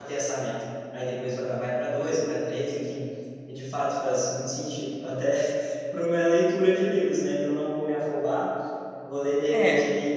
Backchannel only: Yes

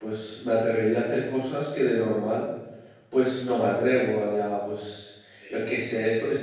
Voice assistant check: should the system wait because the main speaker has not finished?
Yes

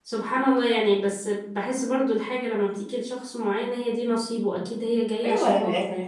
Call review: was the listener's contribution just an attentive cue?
No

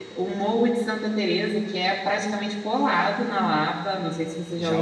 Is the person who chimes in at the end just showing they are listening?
No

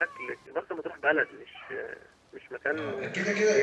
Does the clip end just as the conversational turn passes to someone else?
Yes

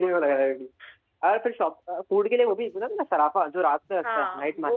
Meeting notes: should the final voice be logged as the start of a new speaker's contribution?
Yes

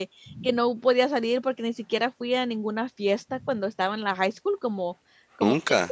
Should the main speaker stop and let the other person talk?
No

